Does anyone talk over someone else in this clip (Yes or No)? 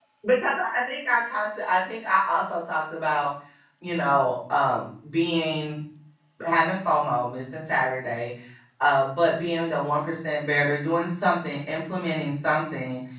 No